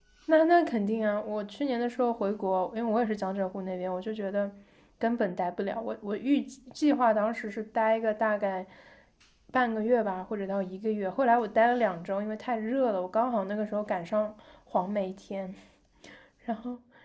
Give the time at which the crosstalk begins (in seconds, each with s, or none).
none